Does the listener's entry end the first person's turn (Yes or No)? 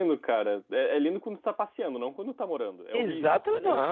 Yes